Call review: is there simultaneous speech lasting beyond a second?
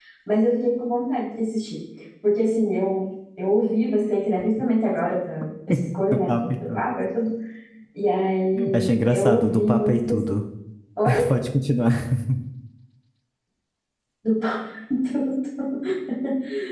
Yes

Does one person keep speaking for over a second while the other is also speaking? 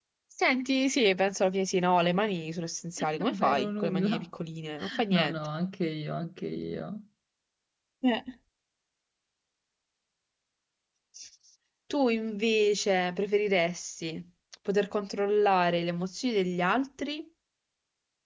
Yes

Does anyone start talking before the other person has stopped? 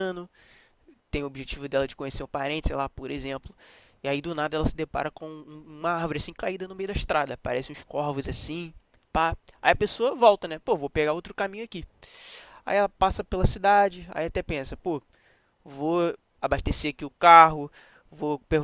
No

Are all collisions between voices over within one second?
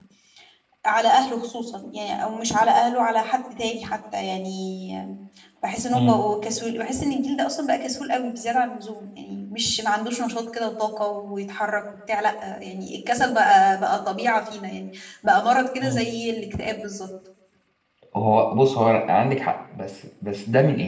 Yes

